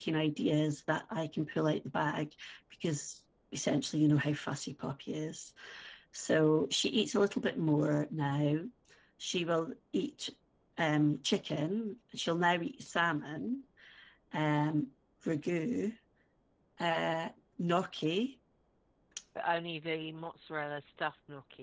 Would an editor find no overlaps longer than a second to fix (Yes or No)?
Yes